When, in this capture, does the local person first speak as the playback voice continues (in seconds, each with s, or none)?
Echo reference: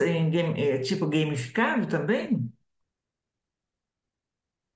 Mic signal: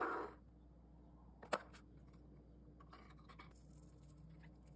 none